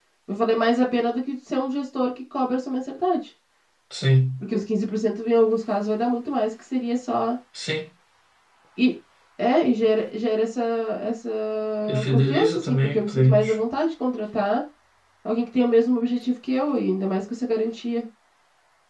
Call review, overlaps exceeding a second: present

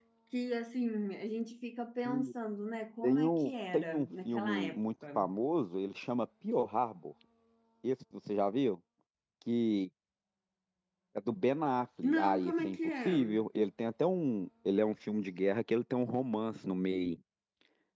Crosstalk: present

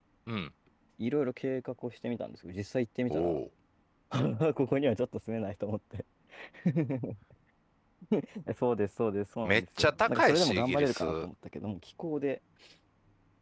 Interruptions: present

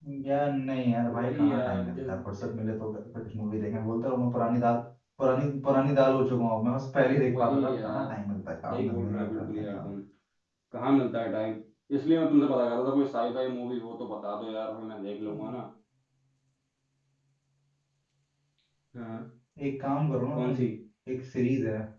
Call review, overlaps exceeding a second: present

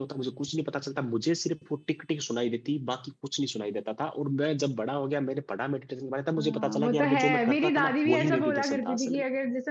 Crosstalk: present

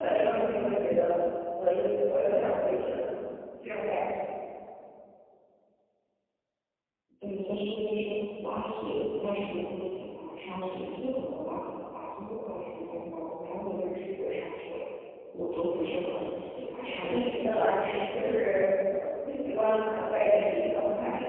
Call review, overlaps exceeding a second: present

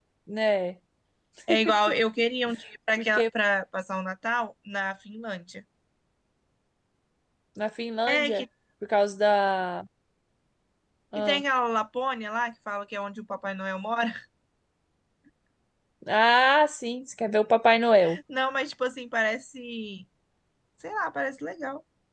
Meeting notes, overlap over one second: none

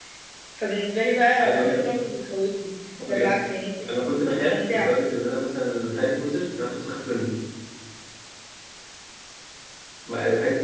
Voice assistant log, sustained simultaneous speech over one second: none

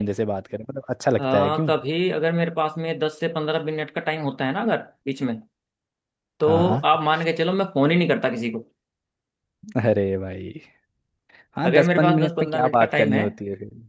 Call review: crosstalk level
present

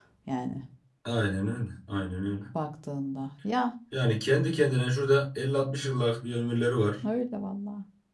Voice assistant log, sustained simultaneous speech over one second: none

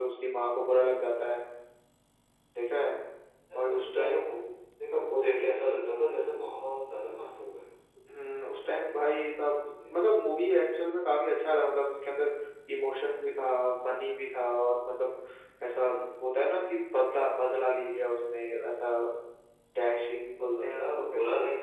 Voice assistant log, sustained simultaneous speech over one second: present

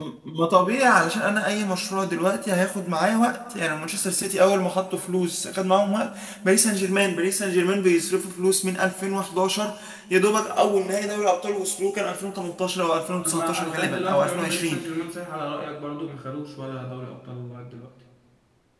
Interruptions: present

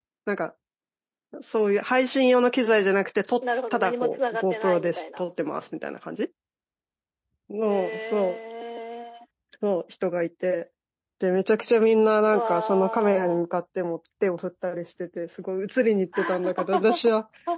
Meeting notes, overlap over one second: present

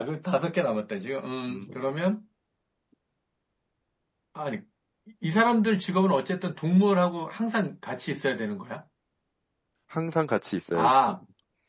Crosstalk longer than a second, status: none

